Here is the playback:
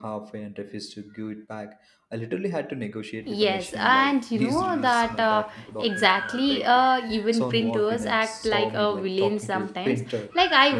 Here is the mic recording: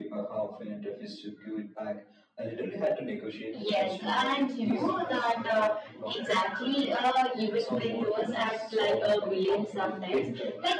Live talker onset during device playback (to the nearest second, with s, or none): none